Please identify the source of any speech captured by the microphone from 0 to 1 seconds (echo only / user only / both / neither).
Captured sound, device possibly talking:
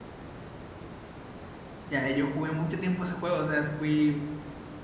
neither